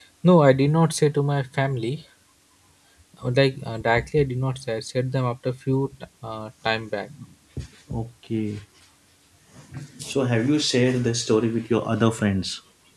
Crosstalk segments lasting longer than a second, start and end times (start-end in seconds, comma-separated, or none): none